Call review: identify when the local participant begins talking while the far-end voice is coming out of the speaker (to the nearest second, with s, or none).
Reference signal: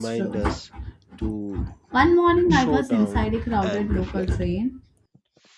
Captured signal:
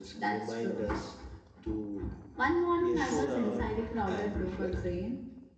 3 s